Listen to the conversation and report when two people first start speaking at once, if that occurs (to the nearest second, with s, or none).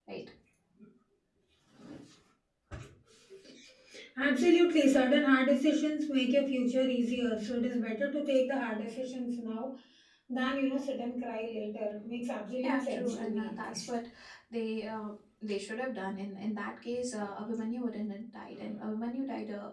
13 s